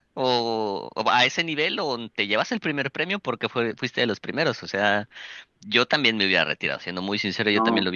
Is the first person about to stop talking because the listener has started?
No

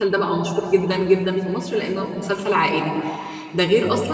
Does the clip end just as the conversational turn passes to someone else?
No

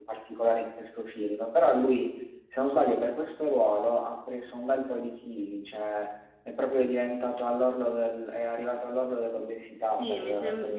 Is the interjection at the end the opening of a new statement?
Yes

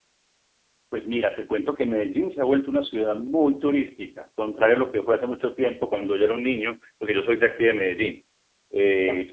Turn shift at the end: No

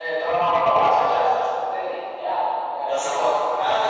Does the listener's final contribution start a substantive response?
Yes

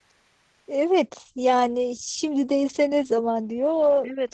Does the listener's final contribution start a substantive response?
Yes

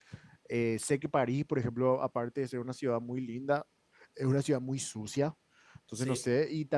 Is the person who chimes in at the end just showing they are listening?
Yes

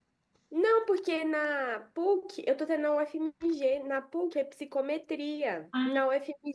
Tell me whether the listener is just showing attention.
Yes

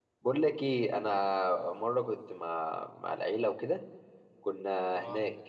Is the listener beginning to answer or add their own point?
No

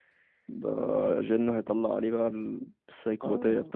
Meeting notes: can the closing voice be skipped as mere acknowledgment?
No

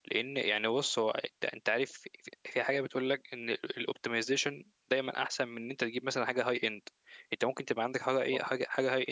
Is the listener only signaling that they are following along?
Yes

